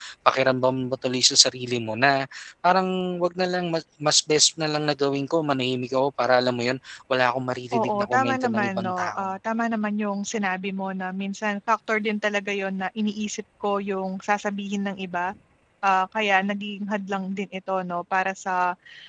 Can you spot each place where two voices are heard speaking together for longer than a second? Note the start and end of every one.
7.7-9.3

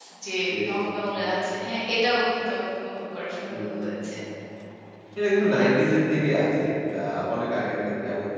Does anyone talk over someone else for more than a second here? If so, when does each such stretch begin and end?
none

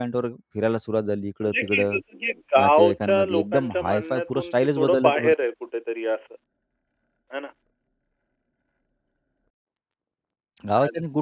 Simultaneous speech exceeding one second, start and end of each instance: 2.6-5.1

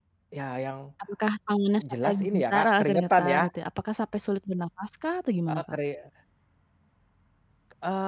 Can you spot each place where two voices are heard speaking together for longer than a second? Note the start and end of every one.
2.0-3.4

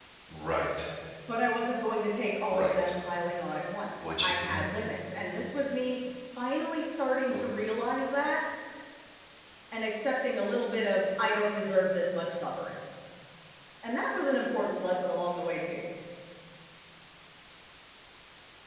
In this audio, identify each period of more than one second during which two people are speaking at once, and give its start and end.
none

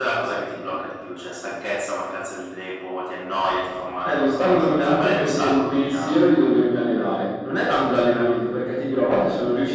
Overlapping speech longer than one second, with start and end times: 4.1-6.1

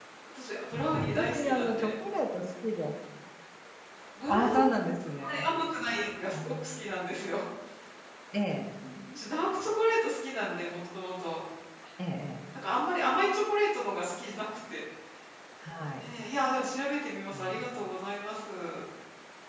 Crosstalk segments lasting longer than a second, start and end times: 0.7-1.9

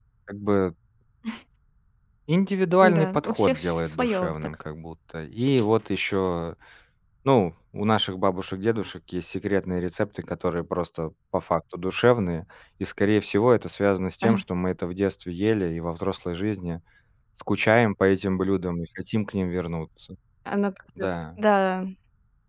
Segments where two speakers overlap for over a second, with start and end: 2.8-4.5

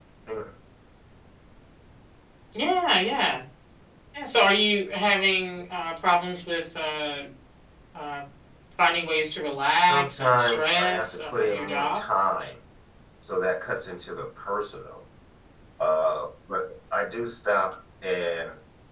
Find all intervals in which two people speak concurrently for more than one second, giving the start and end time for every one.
9.8-12.0

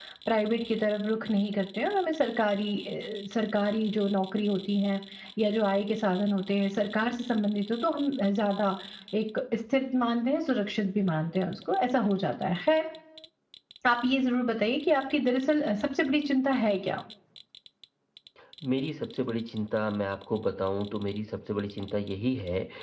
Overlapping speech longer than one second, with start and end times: none

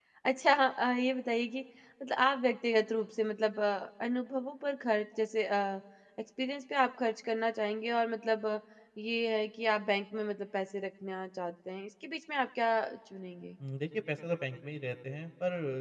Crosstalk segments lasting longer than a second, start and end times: none

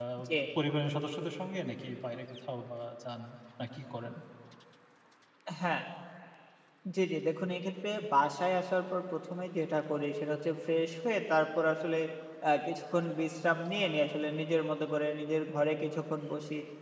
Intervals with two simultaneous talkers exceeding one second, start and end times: none

